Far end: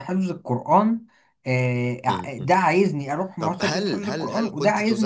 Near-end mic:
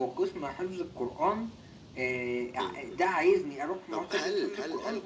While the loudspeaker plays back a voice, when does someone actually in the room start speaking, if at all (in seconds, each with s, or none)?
none